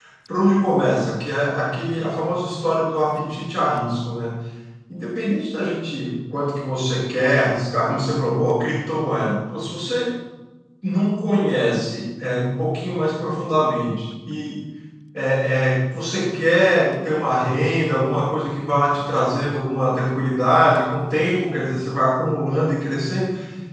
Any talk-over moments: No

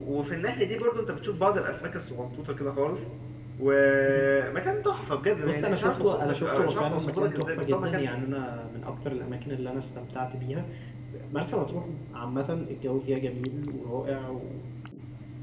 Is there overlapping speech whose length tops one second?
Yes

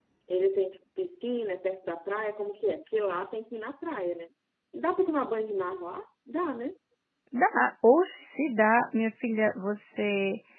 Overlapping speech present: No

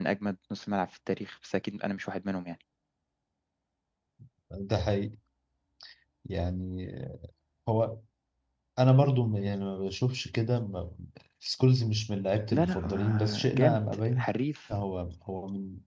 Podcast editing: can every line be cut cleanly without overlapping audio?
No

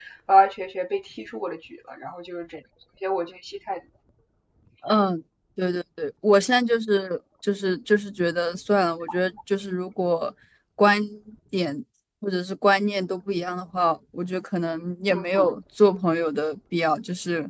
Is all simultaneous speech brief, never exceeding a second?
Yes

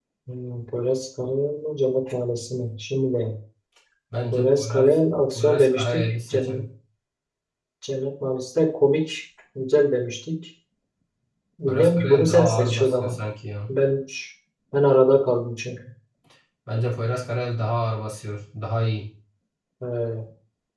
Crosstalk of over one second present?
Yes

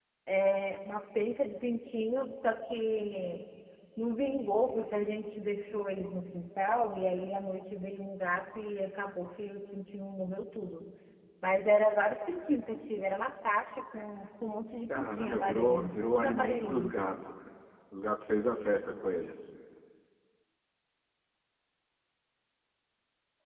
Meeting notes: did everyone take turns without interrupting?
No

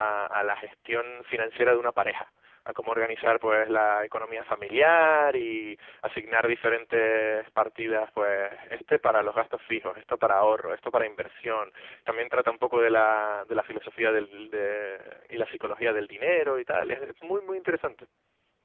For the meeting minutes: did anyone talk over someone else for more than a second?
No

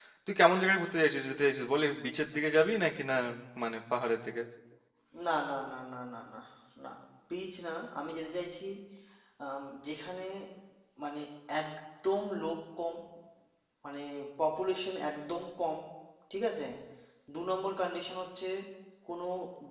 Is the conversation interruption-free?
Yes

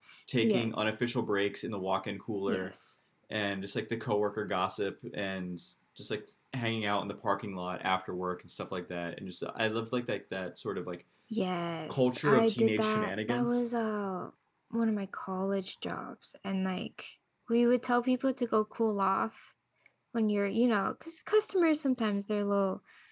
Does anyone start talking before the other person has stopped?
Yes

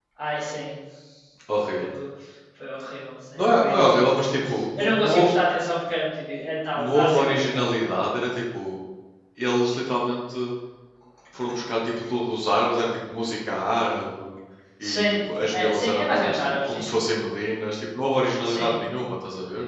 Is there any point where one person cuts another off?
Yes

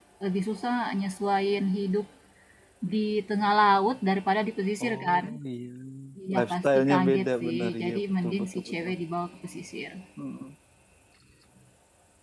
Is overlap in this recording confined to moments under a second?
No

